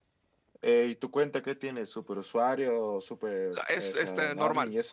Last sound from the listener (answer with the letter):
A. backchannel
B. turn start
B